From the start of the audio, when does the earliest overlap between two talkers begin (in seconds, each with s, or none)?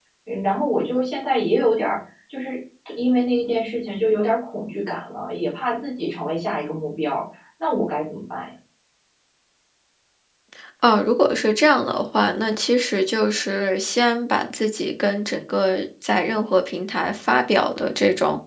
none